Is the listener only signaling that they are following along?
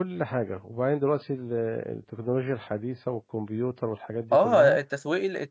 No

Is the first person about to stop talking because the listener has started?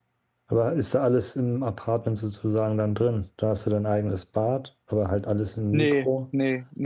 Yes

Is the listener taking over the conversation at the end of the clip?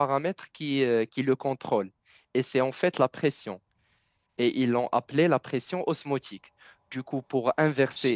No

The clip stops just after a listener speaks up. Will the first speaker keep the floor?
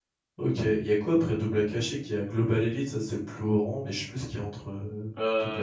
No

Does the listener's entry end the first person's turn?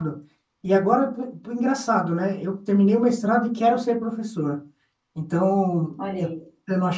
No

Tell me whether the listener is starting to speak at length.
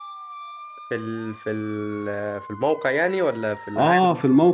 Yes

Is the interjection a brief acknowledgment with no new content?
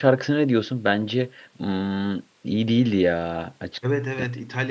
No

